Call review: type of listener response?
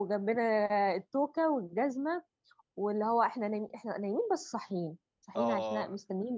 listening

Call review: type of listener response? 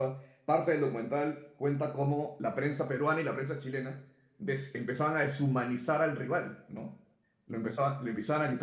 listening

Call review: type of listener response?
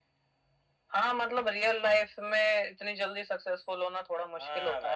taking over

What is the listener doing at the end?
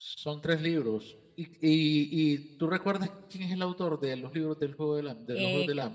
taking over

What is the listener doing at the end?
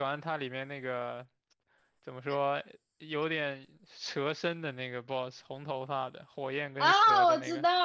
taking over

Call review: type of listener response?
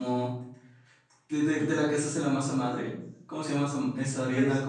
taking over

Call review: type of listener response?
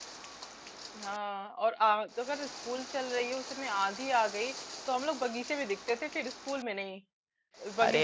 listening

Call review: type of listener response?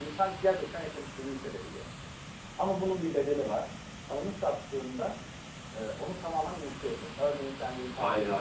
listening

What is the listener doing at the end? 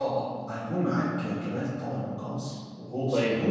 taking over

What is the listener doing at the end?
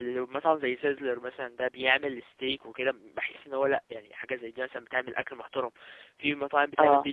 listening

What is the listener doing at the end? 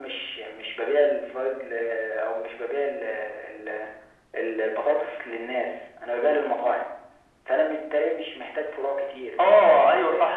taking over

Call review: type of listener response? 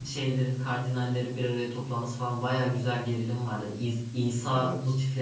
listening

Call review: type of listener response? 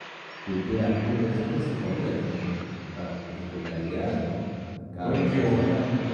taking over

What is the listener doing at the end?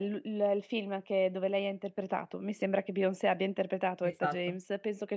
listening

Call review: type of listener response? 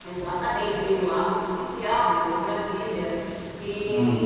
listening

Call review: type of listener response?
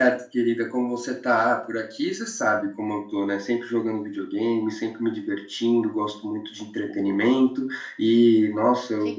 listening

